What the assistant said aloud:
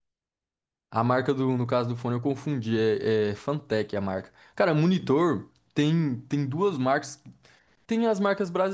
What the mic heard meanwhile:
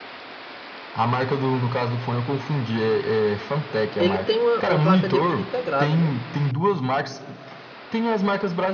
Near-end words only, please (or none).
Ele tem uma, uma placa de vídeo integrada, né?